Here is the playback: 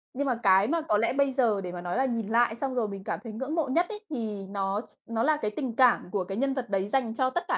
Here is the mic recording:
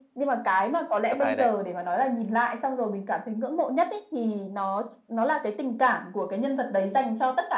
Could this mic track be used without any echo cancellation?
No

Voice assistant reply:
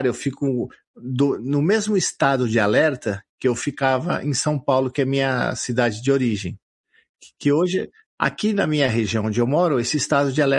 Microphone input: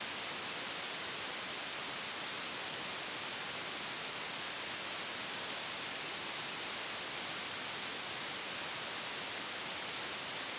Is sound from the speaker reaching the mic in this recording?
No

